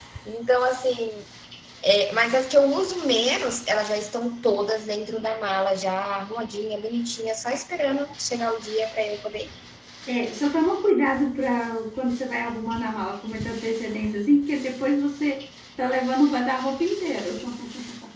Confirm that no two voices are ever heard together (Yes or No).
Yes